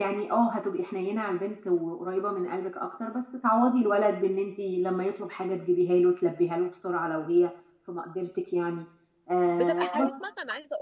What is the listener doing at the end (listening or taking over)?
taking over